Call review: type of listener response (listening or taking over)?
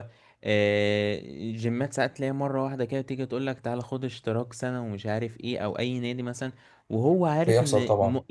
listening